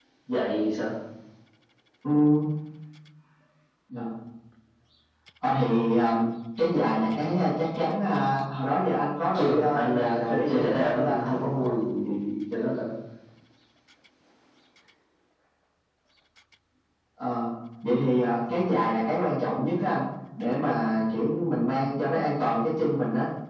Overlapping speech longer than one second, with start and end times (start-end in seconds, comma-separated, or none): 9.3-11.2